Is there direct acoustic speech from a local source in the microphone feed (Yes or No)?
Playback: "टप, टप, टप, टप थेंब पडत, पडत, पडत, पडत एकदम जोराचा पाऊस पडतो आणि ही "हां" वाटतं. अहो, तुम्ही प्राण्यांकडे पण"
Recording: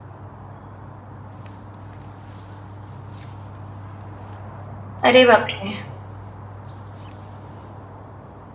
Yes